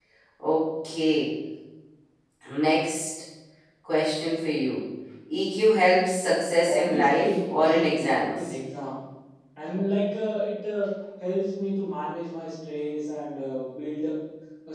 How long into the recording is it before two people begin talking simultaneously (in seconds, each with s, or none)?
6.7 s